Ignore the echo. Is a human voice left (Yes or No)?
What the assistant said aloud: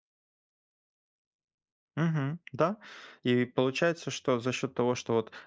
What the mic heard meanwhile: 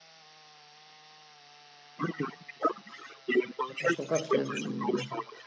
Yes